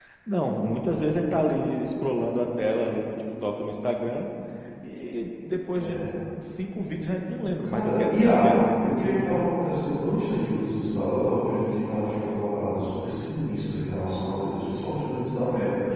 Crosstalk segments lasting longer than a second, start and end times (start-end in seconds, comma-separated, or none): 7.6-9.0